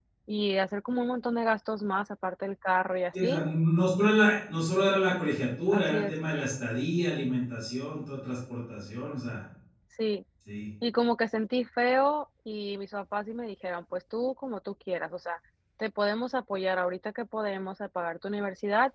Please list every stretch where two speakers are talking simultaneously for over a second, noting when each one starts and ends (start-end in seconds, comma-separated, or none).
none